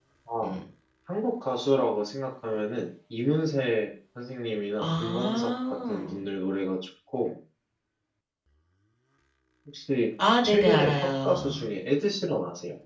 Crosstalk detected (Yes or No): Yes